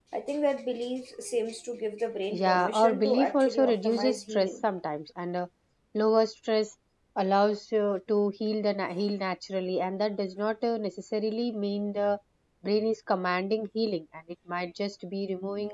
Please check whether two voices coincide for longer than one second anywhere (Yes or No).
Yes